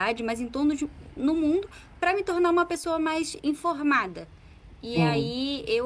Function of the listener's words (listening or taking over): listening